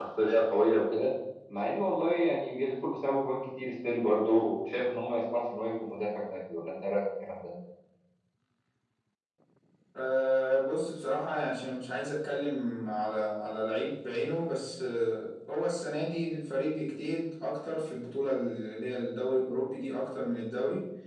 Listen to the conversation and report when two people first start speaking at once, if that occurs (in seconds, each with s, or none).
none